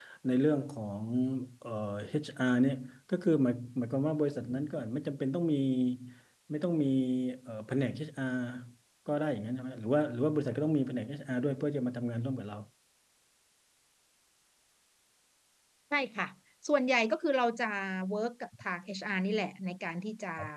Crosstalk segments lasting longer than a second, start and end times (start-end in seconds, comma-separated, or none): none